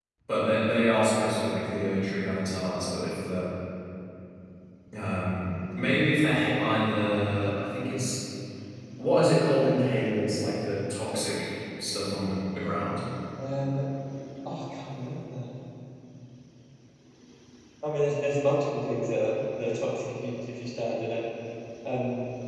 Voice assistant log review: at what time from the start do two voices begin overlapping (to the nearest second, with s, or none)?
none